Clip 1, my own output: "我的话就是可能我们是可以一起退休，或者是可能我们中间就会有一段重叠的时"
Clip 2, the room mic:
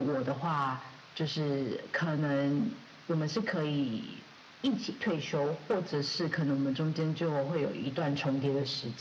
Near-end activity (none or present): none